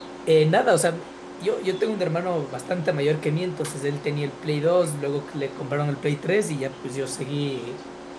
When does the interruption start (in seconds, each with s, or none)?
none